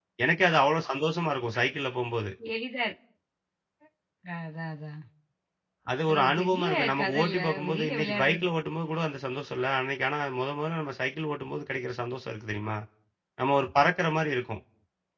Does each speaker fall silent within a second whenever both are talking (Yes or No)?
No